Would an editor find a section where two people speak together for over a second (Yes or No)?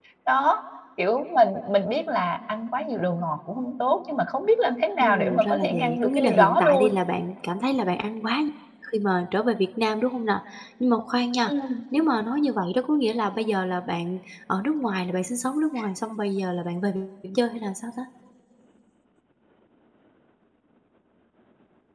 Yes